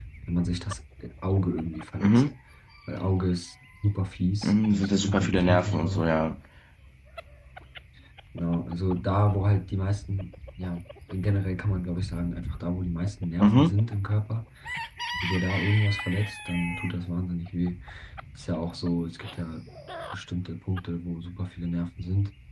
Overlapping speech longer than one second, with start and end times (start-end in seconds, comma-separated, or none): 4.4-6.0